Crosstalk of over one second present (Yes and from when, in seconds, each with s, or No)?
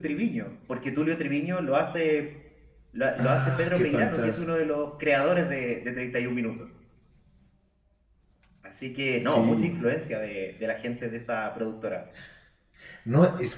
Yes, from 3.2 s